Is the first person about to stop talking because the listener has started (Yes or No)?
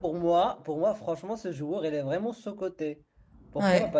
No